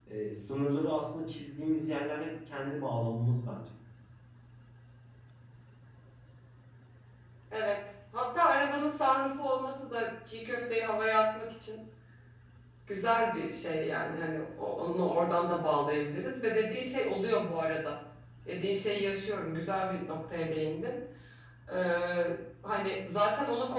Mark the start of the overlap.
none

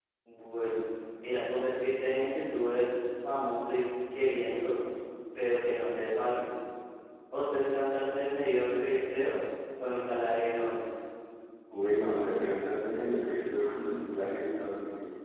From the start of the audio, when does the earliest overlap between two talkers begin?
none

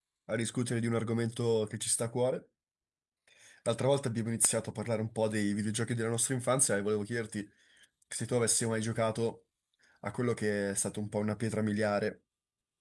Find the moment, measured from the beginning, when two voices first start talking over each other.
none

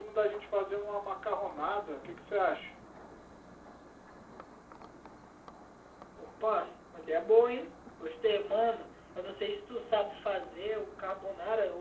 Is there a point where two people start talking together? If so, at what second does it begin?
none

